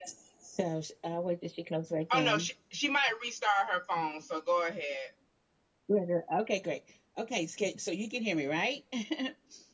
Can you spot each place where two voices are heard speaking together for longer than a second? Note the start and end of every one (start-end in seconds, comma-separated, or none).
none